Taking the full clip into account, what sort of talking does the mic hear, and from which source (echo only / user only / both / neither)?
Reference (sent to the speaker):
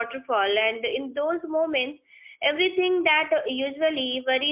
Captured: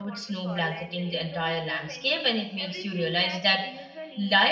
both